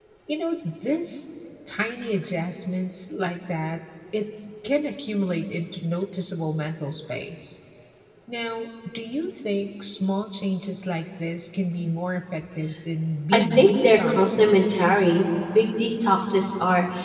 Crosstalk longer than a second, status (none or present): present